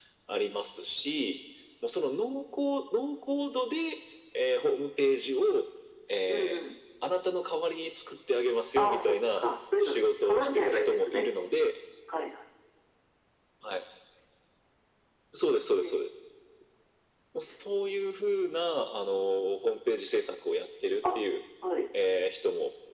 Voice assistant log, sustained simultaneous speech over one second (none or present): present